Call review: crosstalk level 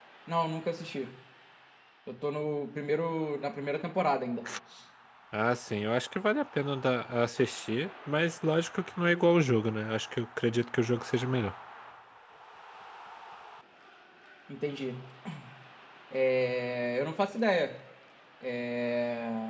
none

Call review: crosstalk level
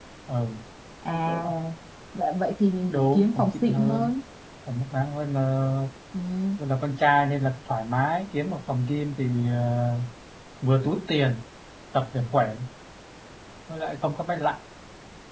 present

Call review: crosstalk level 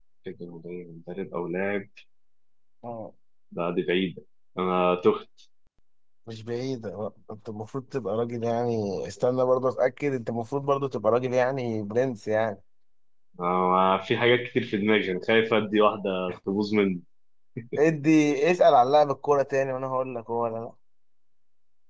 none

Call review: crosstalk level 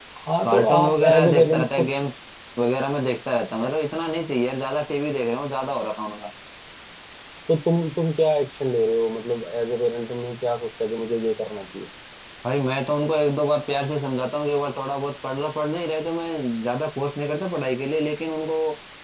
present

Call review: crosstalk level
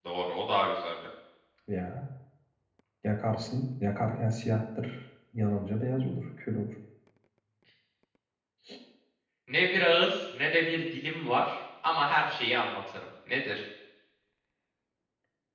none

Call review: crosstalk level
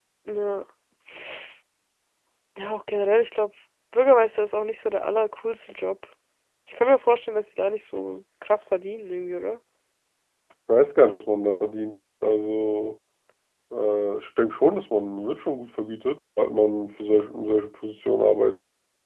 none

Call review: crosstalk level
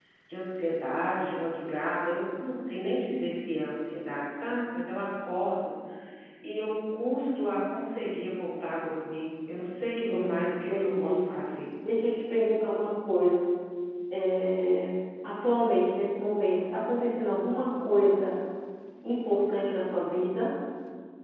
present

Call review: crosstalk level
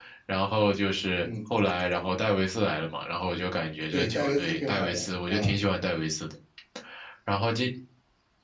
present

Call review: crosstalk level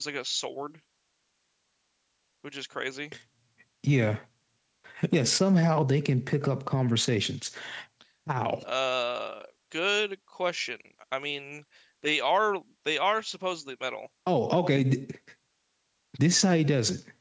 none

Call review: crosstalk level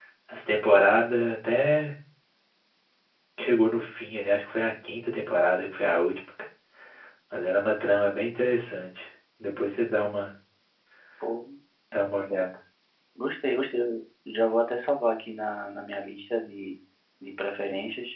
none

